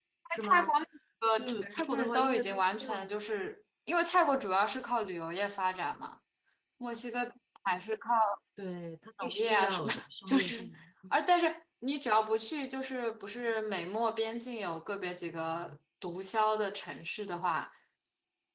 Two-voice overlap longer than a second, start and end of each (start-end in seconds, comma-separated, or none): 1.3-2.9, 9.2-10.5